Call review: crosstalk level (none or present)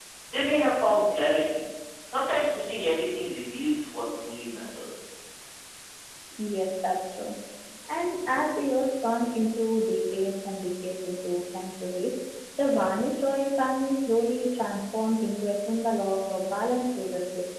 none